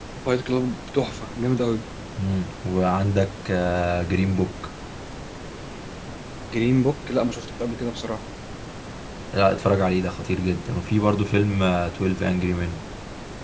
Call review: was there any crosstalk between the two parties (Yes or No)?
No